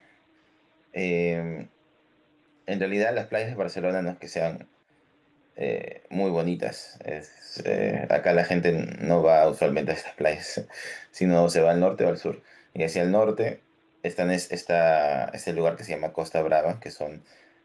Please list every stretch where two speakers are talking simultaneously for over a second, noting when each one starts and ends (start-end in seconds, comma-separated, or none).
none